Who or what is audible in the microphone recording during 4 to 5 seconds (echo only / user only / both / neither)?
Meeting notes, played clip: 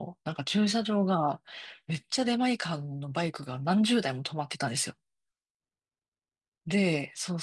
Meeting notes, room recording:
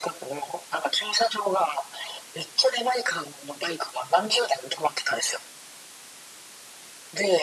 echo only